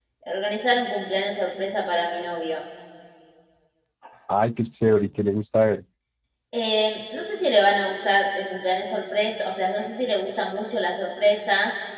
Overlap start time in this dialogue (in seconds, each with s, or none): none